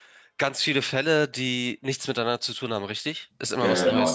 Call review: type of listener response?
taking over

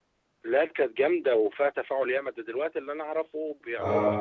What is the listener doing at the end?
listening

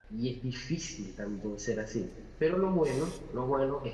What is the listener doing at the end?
listening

